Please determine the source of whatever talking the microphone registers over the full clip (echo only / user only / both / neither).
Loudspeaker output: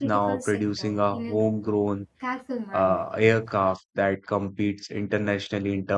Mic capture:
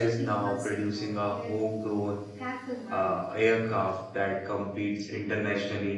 echo only